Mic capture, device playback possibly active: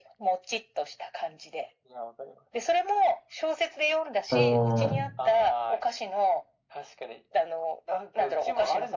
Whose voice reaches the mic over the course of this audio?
both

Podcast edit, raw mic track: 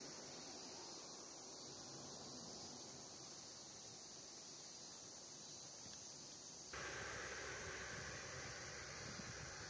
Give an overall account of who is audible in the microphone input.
neither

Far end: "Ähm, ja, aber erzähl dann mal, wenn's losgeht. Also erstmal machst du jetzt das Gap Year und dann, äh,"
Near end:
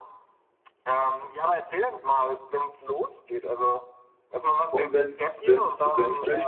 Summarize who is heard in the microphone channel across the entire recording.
both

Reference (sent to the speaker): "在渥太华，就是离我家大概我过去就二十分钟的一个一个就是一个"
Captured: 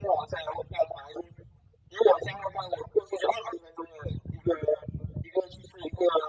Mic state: echo only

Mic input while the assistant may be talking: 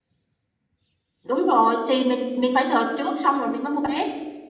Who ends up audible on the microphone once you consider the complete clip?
user only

